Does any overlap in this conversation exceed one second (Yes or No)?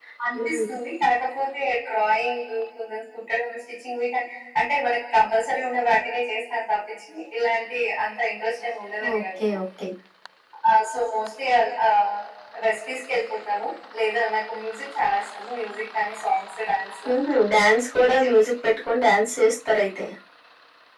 No